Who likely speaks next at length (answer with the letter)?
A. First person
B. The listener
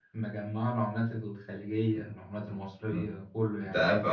B